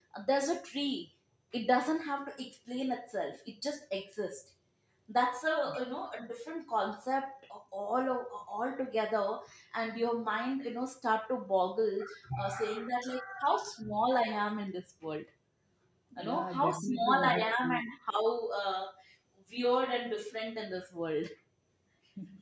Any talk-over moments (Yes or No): Yes